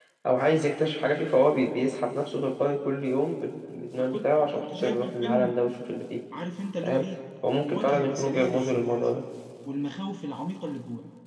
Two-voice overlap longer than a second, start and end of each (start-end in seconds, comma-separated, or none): 4.0-5.6, 7.6-8.9